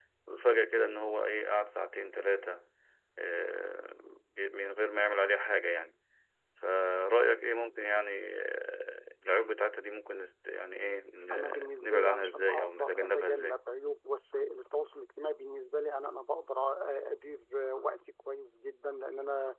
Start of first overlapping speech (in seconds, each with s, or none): 11.3 s